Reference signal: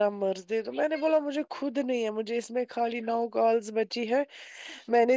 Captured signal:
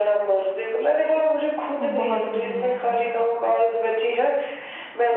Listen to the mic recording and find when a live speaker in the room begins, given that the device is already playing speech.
1.8 s

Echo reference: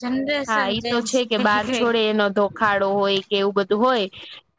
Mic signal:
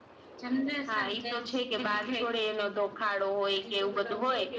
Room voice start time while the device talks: 3.6 s

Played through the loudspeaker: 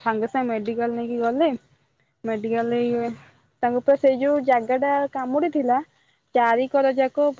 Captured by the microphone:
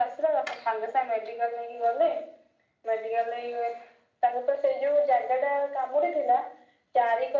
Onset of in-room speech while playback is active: none

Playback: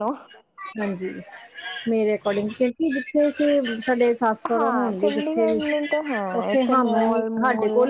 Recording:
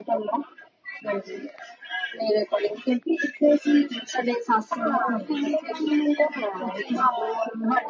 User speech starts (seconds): none

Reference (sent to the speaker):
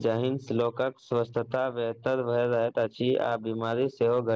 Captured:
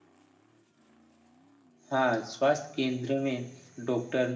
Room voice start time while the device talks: 1.9 s

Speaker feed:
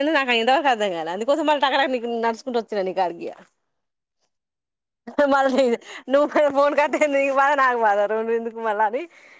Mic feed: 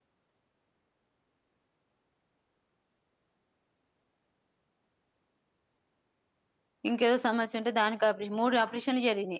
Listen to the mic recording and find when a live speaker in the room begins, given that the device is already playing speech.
6.9 s

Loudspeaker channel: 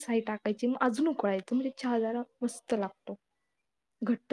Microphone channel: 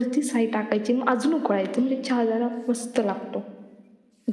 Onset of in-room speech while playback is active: none

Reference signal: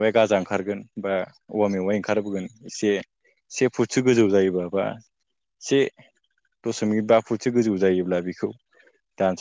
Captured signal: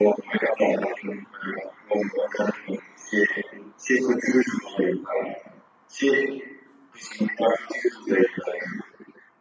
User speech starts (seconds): none

